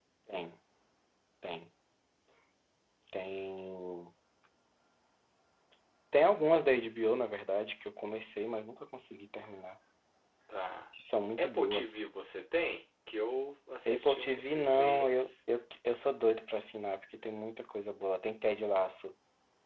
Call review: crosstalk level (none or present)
present